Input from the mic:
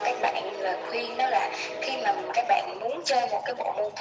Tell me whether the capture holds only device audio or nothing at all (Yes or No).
Yes